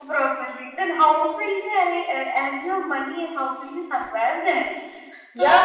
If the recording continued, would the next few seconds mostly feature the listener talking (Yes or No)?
Yes